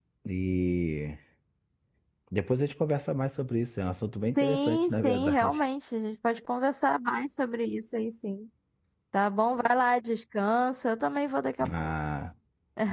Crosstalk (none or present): present